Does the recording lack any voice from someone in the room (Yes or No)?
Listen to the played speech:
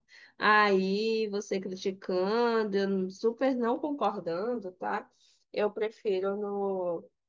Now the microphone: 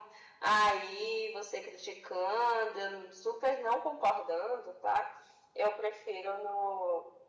Yes